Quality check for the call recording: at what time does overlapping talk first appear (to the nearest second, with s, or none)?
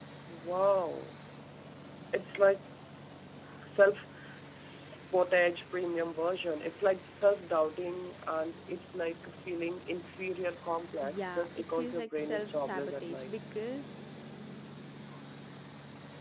11 s